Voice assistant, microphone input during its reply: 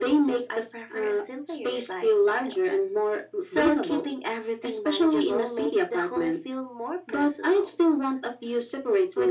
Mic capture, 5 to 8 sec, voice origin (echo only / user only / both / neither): echo only